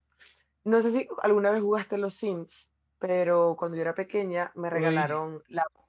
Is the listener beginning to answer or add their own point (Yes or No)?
No